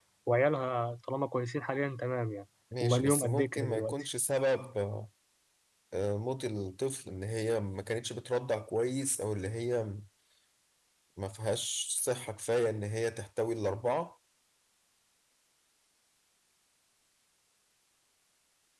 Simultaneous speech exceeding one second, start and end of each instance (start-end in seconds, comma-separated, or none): 2.8-4.0